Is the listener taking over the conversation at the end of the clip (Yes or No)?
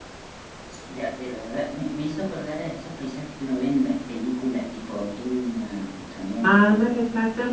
Yes